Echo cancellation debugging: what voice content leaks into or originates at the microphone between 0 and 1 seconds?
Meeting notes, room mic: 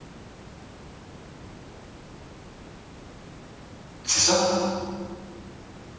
neither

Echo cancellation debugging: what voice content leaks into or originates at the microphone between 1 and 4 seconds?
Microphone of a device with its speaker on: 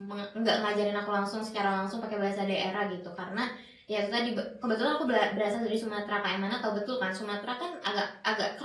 user only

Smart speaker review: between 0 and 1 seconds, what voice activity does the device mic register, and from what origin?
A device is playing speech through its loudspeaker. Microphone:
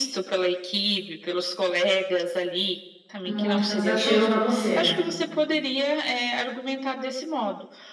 echo only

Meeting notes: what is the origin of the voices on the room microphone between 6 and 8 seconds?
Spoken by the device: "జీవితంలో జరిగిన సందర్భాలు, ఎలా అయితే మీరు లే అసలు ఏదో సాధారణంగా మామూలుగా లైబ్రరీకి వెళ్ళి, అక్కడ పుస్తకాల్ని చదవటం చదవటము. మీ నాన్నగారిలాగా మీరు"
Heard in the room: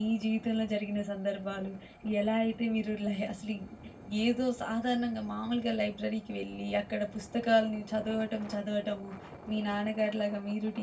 echo only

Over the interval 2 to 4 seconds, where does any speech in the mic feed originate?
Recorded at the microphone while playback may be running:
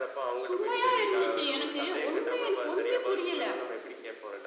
echo only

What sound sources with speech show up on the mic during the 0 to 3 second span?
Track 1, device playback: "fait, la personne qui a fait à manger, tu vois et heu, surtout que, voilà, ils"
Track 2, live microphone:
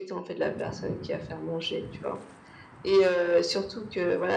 echo only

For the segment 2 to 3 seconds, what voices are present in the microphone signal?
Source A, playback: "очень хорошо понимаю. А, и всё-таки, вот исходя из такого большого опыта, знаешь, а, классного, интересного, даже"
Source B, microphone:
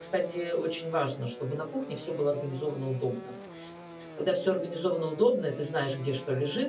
user only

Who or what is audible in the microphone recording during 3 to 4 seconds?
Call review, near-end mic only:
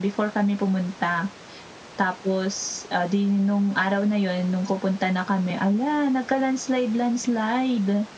echo only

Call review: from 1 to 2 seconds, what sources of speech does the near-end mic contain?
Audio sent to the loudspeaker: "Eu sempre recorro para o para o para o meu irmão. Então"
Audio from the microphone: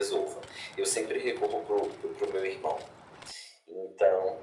echo only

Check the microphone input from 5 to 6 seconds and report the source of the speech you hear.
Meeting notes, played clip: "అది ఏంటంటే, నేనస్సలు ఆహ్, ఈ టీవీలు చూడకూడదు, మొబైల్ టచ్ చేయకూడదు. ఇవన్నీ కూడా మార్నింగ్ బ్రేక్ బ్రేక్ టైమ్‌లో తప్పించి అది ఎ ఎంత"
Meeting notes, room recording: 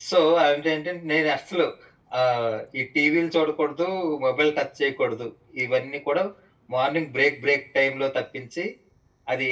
echo only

